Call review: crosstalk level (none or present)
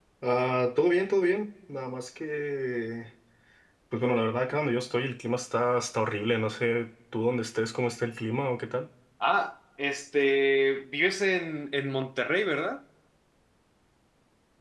none